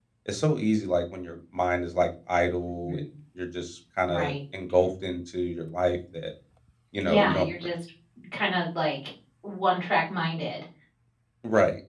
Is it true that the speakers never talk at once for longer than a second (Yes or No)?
Yes